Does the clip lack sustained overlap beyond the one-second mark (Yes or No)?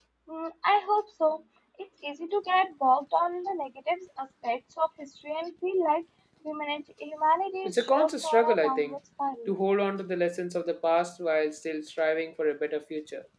No